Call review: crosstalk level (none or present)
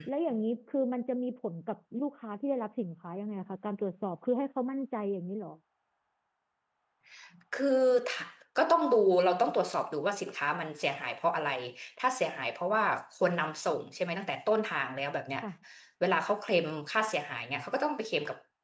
none